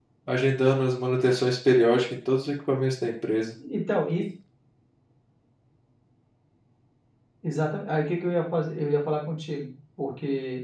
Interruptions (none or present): none